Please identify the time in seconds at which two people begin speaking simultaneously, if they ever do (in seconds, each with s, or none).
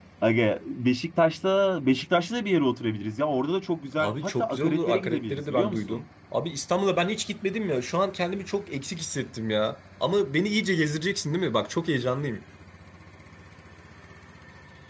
4.0 s